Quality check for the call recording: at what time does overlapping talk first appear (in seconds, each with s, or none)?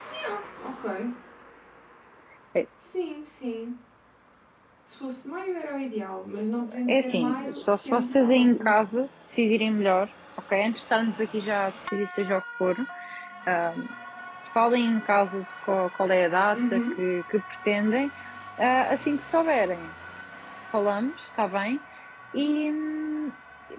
6.9 s